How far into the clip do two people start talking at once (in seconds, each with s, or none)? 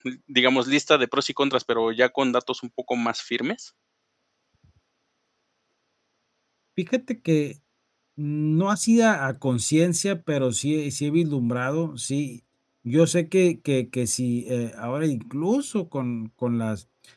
none